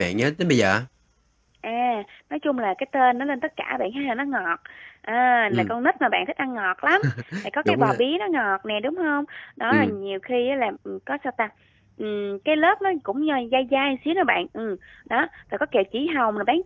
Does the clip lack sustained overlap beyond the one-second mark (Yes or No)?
Yes